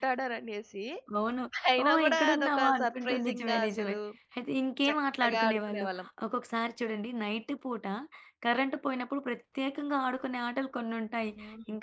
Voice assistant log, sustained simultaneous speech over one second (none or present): present